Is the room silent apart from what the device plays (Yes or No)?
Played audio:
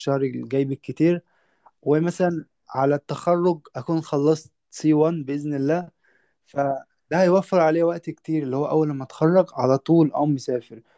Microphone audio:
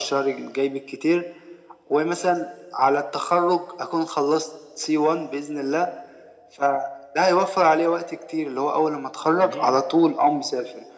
No